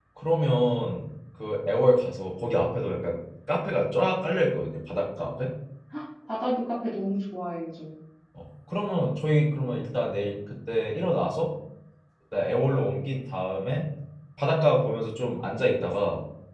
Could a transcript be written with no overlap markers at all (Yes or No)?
Yes